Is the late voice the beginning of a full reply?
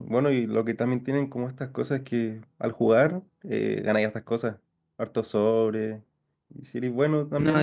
No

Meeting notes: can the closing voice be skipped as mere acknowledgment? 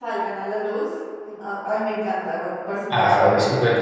No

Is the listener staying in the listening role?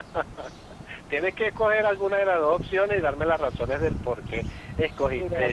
No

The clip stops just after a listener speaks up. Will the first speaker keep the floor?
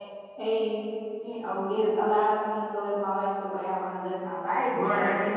Yes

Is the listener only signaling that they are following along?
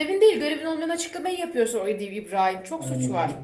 No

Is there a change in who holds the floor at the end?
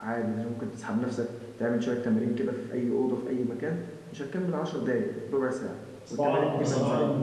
Yes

